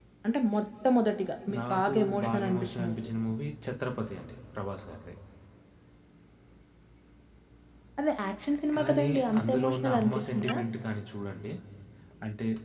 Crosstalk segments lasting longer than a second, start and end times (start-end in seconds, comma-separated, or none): 1.6-3.1, 8.8-10.6